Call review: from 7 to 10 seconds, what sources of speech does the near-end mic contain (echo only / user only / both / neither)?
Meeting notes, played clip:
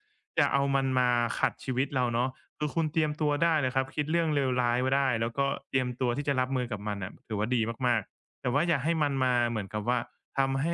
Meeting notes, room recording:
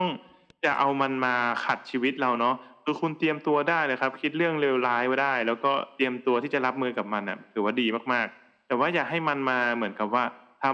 echo only